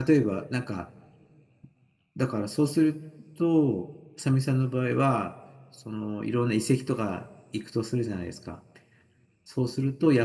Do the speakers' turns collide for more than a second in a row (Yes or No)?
No